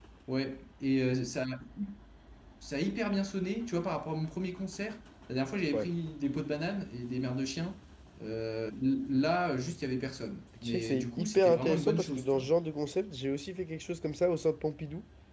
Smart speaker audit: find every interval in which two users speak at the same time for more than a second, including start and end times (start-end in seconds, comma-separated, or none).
10.6-12.5